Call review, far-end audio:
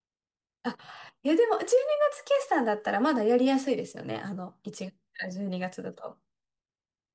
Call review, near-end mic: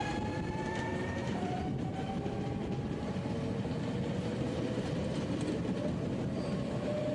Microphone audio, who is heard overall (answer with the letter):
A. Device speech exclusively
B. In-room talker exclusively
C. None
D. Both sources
C